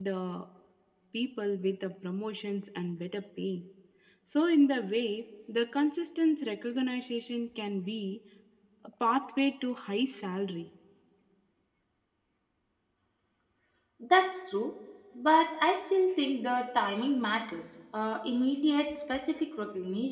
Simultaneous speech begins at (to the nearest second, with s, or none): none